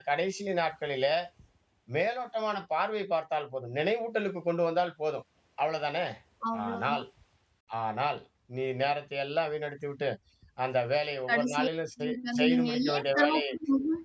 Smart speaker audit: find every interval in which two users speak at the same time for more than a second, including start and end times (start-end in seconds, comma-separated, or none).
12.1-13.5